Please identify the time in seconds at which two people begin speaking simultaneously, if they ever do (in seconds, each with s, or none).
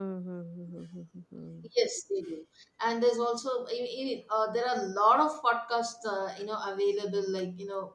none